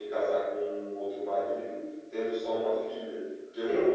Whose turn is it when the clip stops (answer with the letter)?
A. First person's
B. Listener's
B